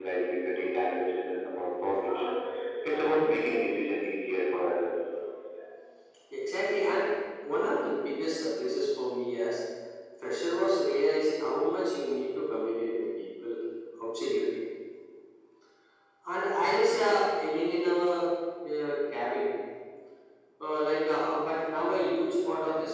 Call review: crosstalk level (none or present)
none